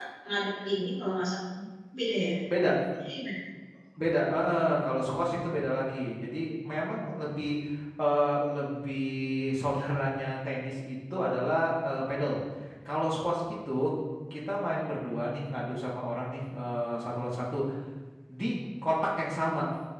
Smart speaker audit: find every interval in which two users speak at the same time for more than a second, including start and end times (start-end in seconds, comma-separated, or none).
none